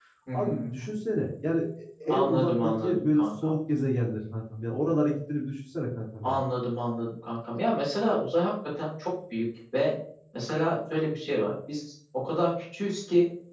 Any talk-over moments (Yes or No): Yes